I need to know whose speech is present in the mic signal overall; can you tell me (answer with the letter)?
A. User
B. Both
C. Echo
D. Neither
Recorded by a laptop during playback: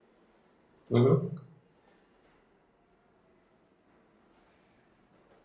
A